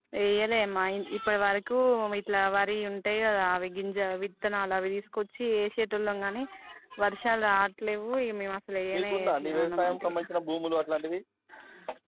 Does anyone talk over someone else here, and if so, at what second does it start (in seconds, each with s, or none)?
8.9 s